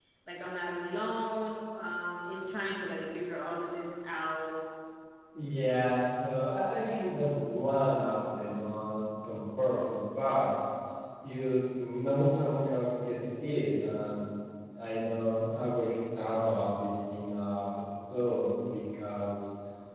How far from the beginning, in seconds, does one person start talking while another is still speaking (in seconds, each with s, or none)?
none